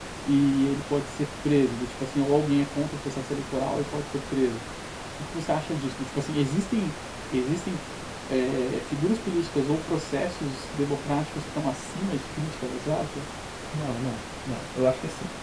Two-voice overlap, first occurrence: none

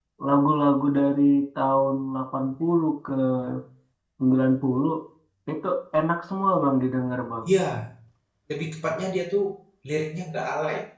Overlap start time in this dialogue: none

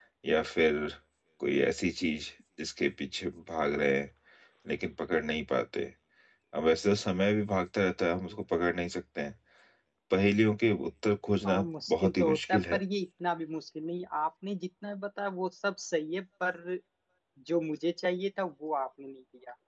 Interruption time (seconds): 11.4 s

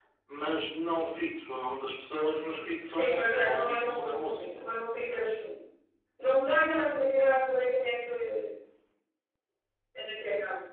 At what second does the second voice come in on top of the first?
2.9 s

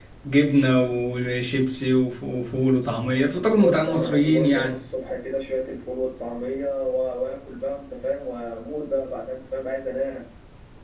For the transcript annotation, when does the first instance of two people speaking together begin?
3.3 s

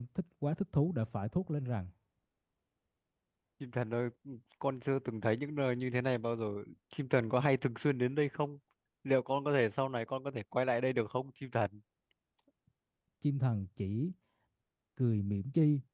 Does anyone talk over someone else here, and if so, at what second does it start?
none

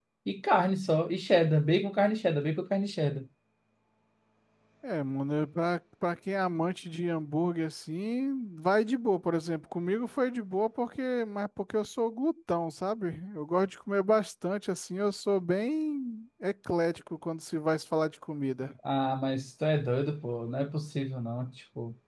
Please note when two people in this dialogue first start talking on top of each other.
none

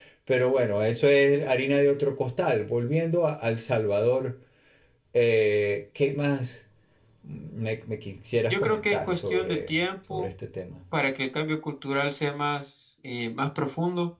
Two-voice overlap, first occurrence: 8.5 s

